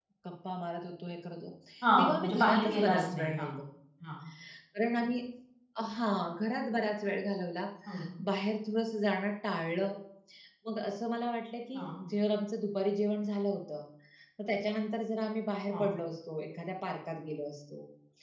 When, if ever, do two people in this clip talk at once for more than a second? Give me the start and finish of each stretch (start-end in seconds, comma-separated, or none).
2.0-3.5